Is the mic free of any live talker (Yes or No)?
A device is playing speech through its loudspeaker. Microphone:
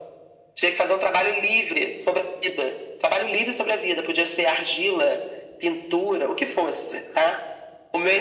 Yes